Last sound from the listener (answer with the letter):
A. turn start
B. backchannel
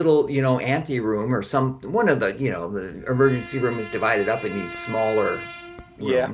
B